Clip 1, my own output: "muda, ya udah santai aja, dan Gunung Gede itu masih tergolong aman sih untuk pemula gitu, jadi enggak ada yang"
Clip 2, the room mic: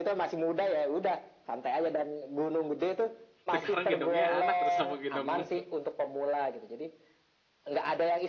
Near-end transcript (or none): sekarang gendongnya anak, keres sama gendong